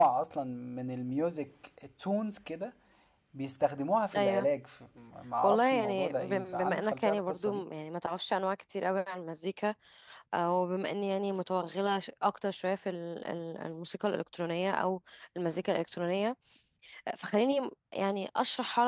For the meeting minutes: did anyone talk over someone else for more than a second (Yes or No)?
Yes